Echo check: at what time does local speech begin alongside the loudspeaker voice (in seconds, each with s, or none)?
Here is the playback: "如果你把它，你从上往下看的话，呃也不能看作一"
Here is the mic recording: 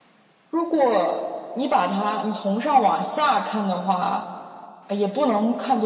none